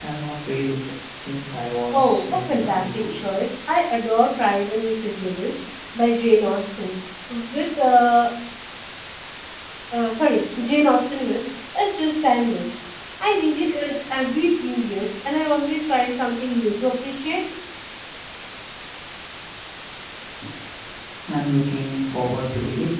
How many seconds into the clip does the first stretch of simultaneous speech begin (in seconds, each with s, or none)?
1.9 s